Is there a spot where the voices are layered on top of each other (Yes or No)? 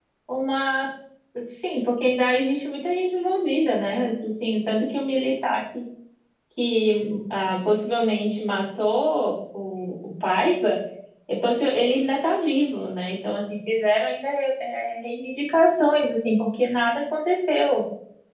No